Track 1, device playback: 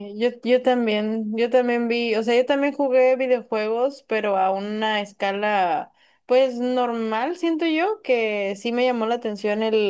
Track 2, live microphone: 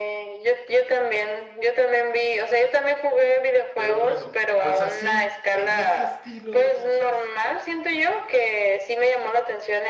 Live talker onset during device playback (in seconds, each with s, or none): 3.7 s